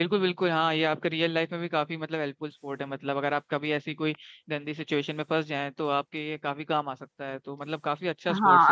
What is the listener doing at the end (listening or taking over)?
taking over